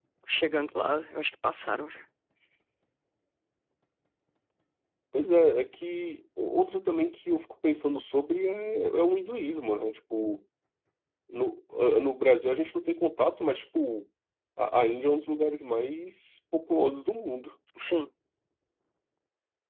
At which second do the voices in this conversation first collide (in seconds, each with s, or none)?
none